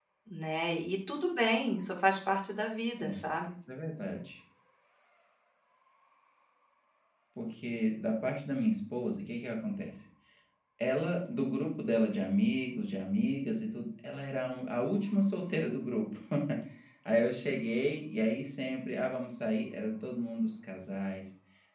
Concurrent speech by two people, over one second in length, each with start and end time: none

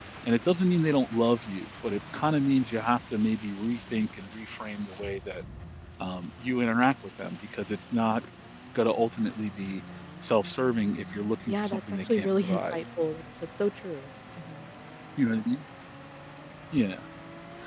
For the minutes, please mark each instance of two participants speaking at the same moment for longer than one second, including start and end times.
11.5-12.8

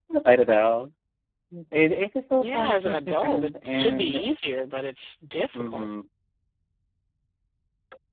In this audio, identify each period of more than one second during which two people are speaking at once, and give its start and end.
2.4-4.2

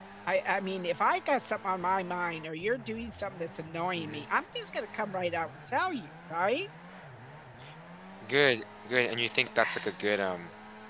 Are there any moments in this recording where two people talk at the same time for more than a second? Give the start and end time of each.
none

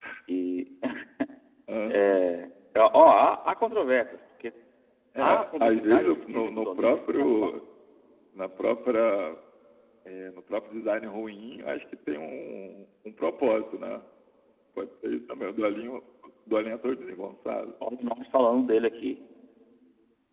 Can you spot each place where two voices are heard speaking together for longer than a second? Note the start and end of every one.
5.2-7.5

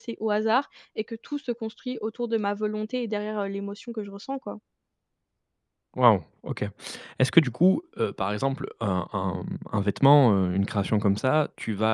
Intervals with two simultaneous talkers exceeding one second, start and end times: none

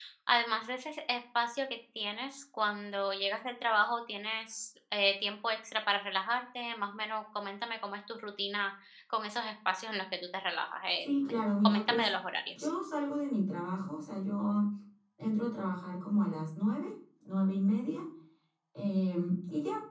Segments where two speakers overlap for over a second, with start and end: 10.9-12.1

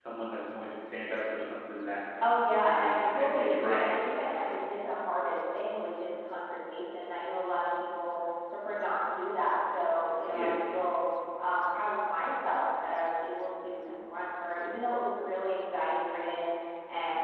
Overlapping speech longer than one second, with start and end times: 2.6-3.9

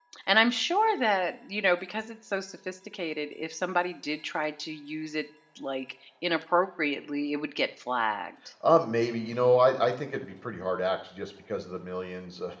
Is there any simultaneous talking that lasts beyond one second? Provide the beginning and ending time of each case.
none

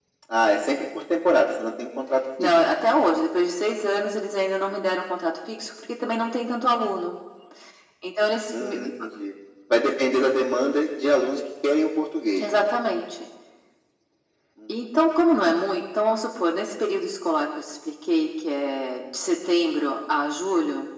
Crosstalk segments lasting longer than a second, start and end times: none

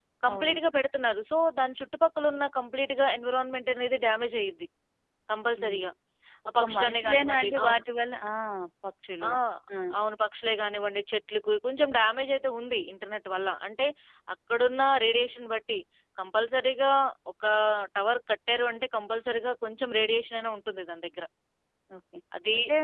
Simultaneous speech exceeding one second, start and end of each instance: 6.6-7.8

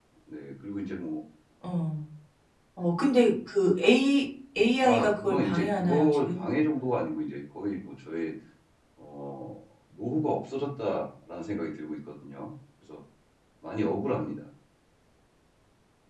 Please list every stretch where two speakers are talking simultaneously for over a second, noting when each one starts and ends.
4.8-6.4

